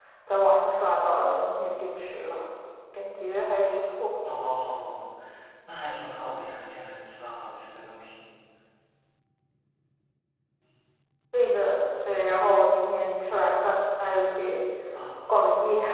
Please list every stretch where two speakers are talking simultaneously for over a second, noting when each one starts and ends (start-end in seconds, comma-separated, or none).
none